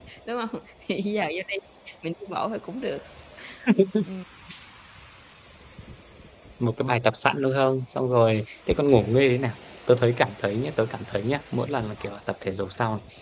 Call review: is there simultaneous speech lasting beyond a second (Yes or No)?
No